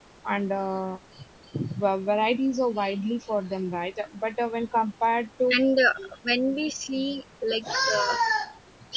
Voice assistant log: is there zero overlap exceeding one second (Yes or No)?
Yes